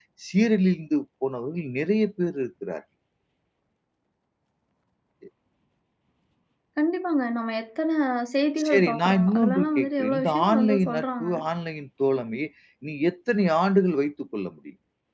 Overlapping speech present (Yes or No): Yes